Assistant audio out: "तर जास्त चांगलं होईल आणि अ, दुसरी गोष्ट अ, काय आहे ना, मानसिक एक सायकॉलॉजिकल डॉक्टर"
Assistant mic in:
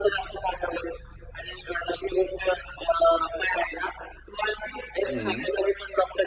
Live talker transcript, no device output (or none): हं,